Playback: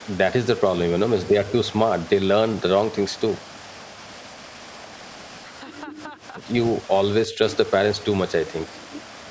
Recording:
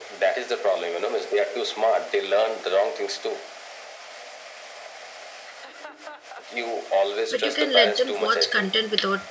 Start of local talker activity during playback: 7.3 s

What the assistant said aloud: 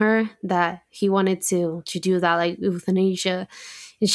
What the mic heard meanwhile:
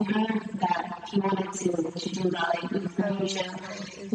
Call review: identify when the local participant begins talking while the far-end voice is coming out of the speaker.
3.0 s

